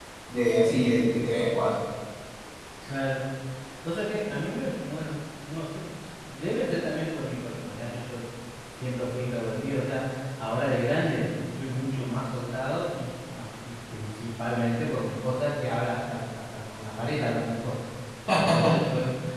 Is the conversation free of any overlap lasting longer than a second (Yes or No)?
Yes